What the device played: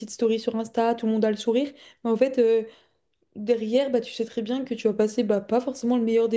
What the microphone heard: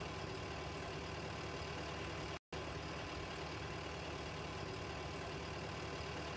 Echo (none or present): none